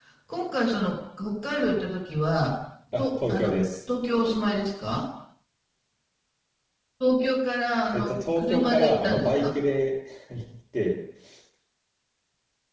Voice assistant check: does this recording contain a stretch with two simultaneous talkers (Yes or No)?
Yes